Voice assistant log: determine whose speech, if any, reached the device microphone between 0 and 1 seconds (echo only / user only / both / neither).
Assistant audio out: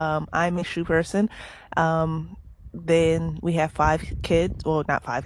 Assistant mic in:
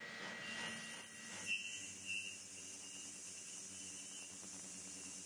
neither